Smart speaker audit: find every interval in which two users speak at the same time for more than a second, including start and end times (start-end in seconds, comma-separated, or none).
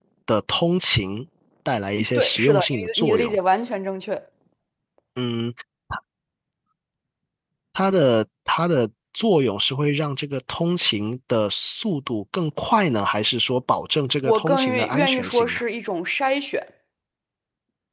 2.2-3.4, 14.2-15.6